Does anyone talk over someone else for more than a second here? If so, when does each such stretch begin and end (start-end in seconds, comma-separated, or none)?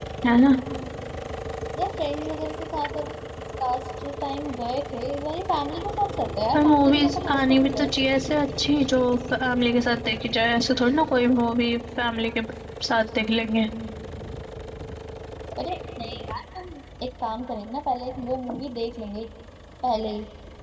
6.5-7.9